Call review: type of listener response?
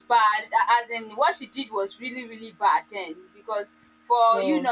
listening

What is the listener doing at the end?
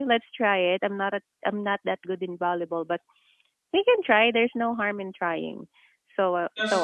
listening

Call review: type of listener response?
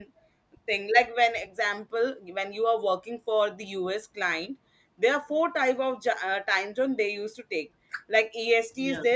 listening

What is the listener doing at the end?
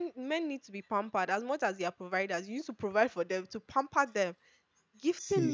listening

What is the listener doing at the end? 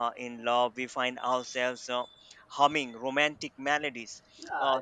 taking over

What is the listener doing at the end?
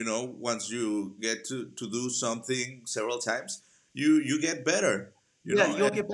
taking over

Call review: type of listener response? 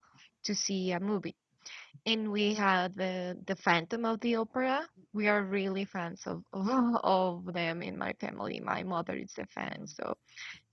listening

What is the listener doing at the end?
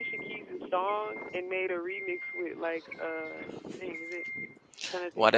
taking over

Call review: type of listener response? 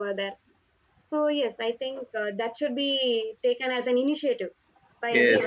taking over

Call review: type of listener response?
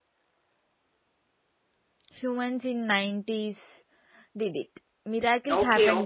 taking over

